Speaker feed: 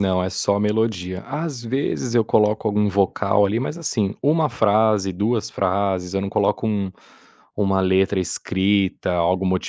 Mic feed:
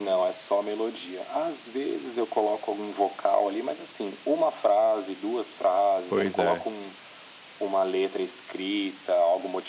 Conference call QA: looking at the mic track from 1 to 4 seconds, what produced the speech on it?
echo only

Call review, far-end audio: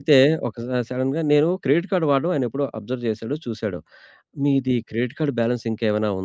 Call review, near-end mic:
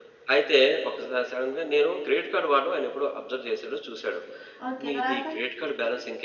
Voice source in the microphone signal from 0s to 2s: echo only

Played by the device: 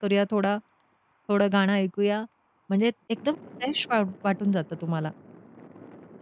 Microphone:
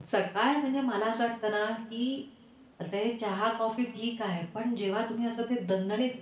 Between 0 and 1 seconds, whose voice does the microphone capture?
user only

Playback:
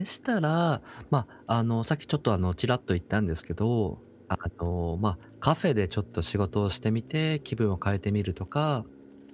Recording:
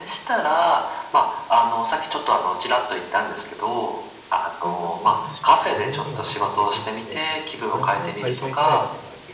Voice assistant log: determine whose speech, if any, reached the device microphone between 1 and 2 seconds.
echo only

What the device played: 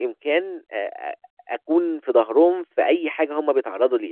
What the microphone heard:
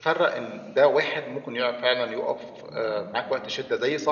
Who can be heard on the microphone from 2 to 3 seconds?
user only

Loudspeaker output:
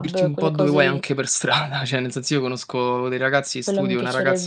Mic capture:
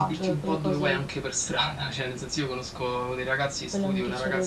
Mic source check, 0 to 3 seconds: echo only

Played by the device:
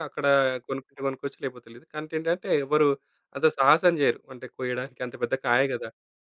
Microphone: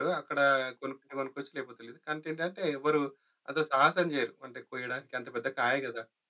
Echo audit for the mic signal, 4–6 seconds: echo only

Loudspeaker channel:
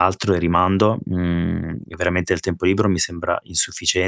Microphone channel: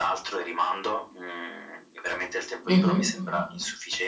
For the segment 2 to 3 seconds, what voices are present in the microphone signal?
both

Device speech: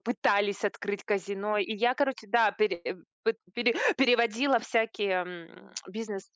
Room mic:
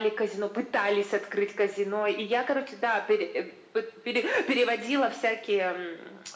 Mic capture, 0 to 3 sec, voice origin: echo only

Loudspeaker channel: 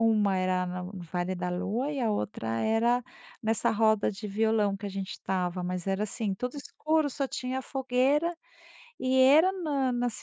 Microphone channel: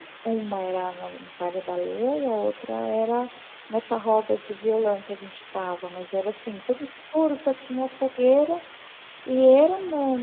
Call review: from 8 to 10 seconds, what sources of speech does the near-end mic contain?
echo only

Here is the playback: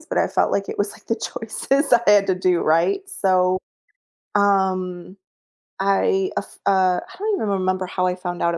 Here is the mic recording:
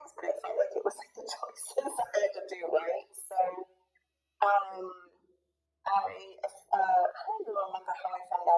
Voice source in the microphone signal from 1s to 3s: echo only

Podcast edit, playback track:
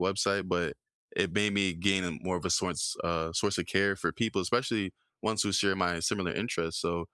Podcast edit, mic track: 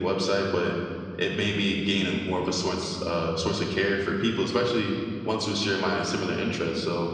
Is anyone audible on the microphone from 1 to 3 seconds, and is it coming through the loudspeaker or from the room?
echo only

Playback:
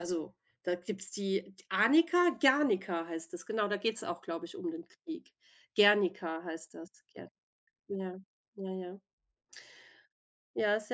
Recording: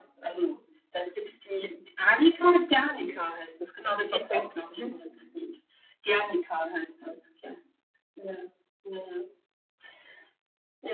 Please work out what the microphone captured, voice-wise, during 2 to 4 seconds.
echo only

